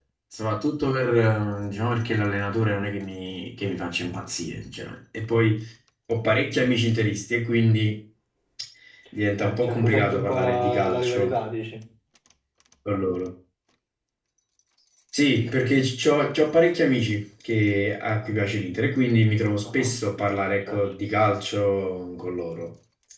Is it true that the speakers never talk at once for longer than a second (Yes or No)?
No